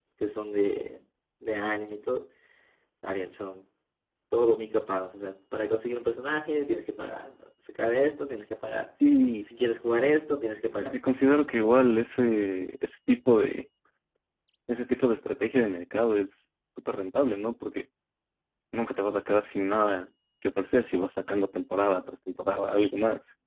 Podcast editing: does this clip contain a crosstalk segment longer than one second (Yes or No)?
No